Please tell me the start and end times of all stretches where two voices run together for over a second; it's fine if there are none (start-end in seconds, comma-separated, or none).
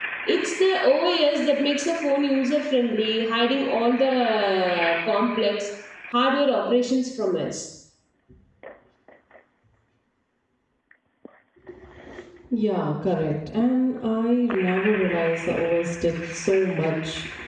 none